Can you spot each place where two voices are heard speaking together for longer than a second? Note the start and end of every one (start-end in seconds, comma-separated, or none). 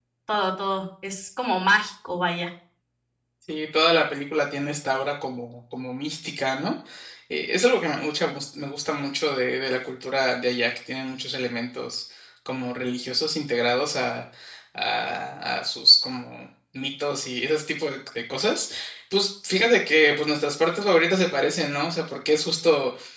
none